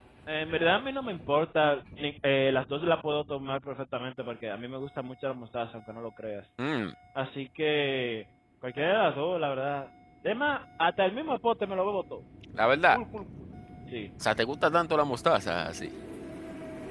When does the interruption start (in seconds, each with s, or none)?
none